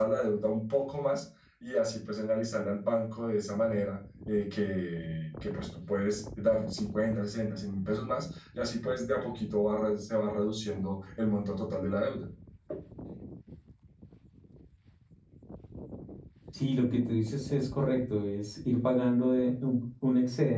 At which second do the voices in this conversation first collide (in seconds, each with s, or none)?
none